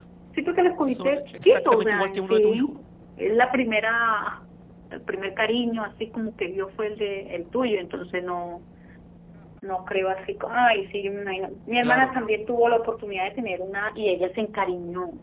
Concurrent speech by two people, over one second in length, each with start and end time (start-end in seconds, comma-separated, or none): 0.9-2.7